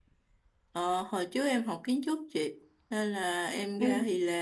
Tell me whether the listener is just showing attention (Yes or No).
Yes